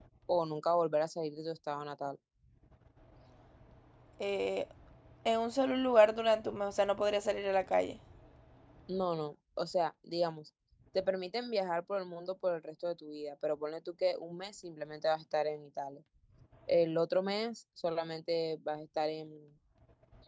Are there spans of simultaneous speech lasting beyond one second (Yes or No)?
No